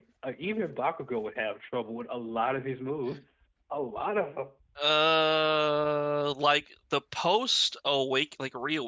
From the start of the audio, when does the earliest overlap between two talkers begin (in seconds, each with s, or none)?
none